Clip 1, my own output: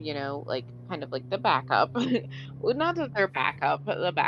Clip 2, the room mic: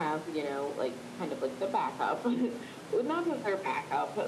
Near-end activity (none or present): none